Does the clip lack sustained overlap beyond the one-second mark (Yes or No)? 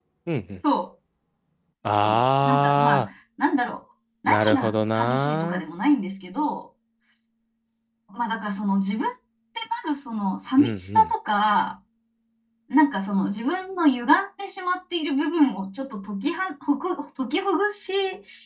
No